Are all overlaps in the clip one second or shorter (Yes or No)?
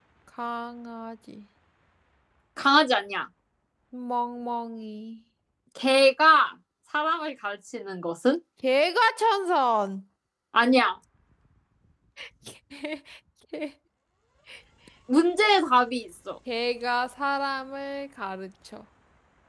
Yes